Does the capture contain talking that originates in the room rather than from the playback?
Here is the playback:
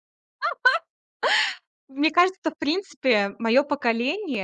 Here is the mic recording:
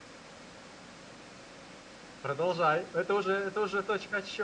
Yes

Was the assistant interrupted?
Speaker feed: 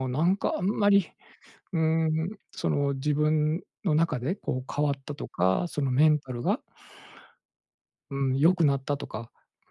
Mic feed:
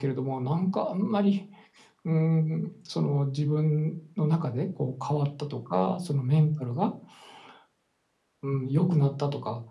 No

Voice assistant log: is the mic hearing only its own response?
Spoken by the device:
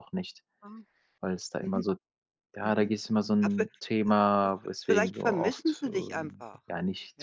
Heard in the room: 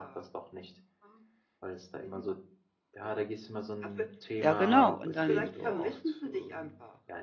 No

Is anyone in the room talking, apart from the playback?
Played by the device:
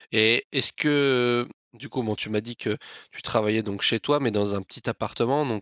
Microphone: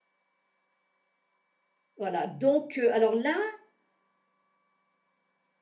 Yes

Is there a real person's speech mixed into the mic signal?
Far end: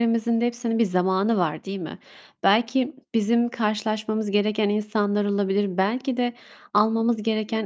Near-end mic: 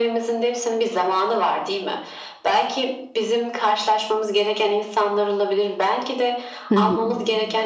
Yes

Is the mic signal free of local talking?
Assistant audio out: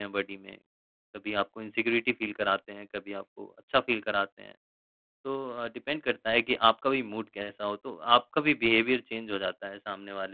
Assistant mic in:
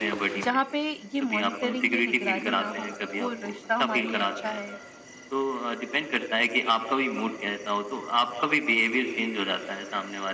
No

